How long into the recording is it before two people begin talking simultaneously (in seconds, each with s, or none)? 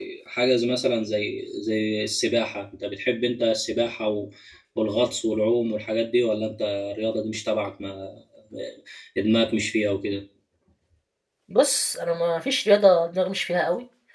none